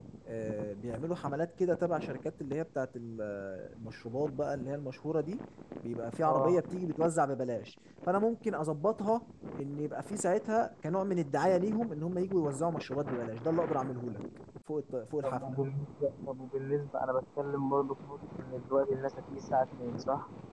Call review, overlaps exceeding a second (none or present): none